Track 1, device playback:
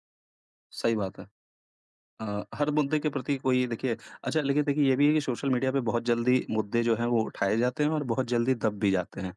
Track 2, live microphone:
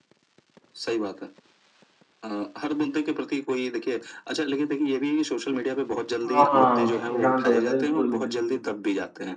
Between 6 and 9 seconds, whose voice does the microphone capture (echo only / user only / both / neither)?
both